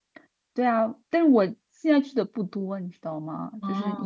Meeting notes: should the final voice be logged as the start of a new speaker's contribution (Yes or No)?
No